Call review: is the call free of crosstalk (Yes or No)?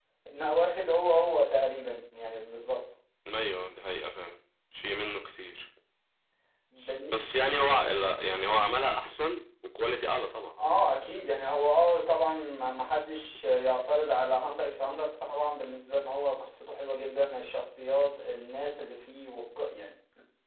Yes